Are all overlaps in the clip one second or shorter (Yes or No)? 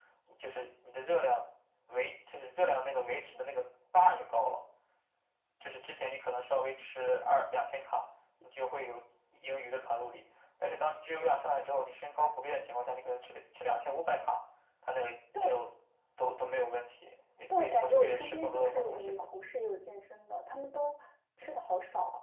No